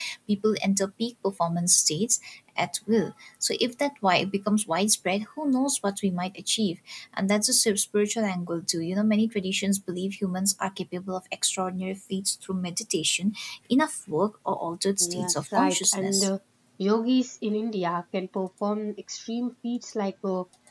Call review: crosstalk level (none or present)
present